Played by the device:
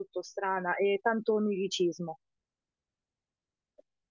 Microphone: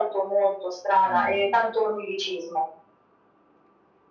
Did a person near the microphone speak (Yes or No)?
Yes